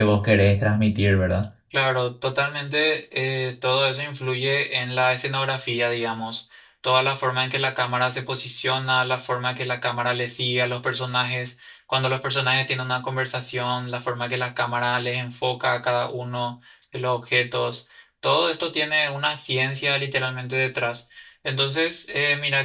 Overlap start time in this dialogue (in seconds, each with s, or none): none